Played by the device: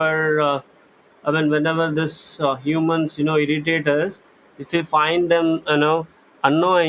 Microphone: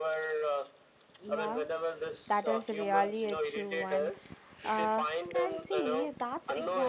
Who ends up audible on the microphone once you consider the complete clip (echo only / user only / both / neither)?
both